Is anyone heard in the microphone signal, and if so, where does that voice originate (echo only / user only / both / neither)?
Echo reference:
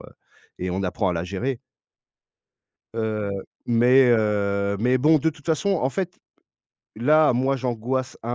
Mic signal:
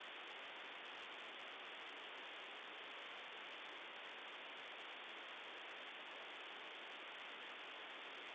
neither